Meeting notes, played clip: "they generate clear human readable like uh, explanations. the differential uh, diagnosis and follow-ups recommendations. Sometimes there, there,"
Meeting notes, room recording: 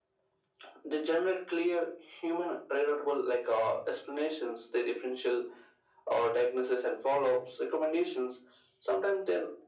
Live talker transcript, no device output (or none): none